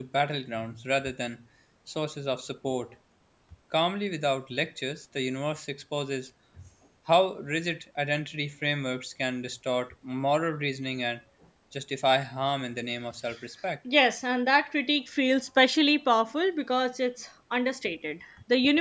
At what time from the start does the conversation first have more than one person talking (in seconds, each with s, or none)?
none